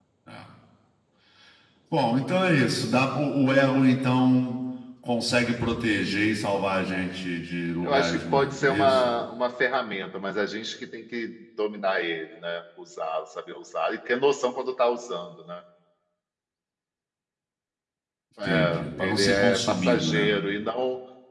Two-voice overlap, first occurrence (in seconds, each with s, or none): 7.8 s